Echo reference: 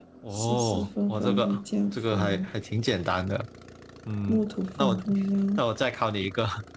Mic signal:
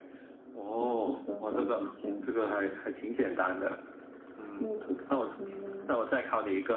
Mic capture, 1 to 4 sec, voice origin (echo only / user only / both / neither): echo only